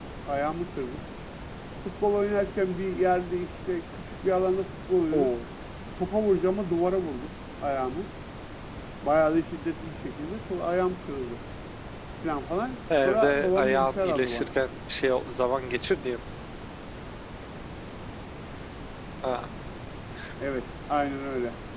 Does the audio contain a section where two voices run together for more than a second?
Yes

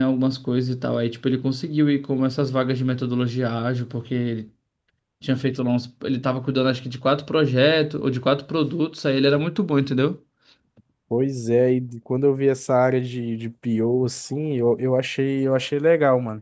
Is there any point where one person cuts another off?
No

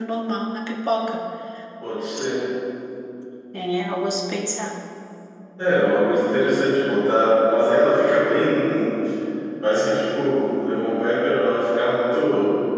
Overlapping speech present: No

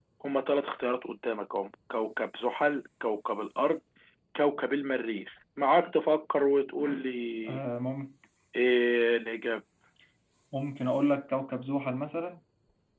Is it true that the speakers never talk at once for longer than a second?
Yes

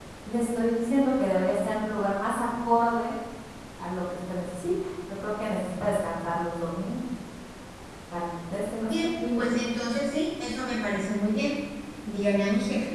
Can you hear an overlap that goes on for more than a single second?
No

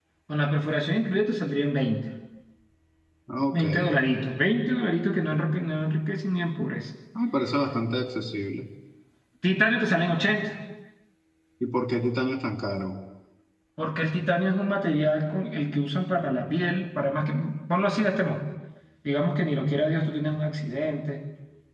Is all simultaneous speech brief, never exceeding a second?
Yes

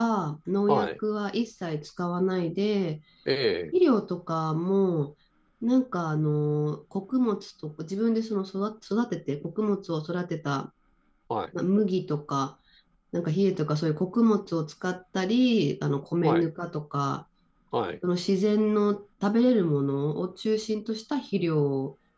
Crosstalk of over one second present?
No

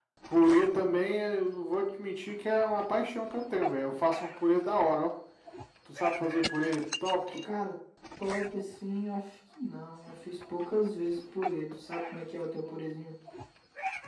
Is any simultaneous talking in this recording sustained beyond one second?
No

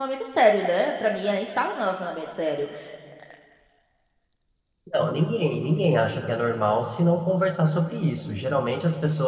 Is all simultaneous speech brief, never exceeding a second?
Yes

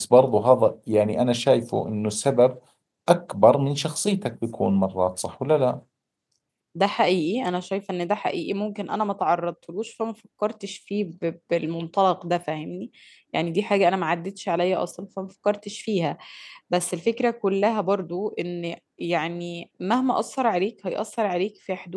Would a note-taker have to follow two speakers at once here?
No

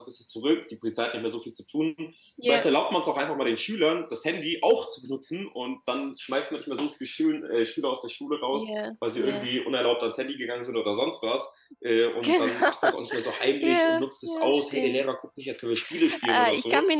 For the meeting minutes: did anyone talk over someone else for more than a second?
Yes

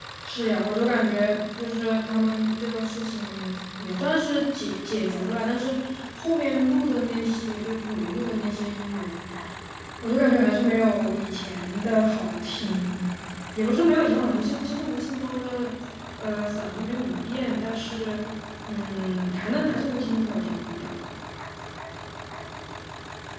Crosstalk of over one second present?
No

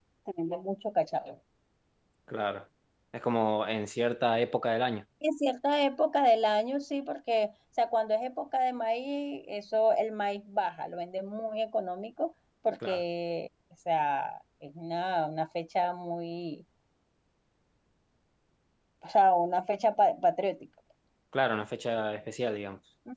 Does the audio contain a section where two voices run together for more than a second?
No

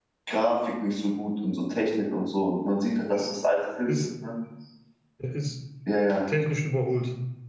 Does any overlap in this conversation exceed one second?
No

